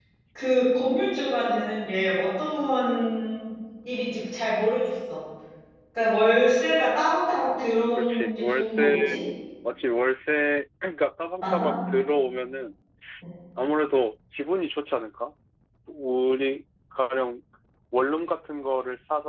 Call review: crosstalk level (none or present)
present